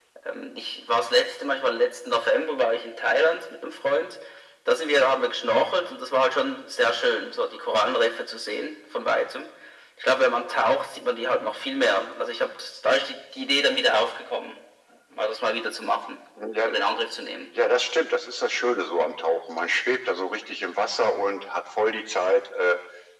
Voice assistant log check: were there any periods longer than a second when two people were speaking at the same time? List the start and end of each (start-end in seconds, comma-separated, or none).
none